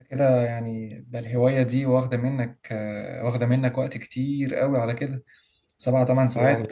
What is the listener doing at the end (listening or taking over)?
listening